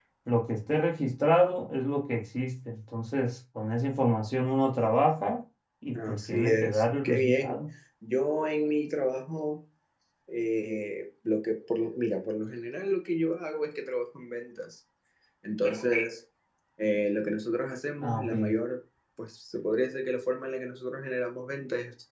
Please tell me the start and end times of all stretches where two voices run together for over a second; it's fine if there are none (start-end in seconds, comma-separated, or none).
5.9-7.6